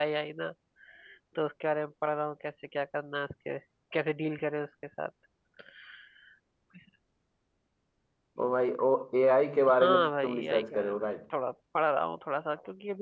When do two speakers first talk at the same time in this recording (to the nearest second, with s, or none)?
10 s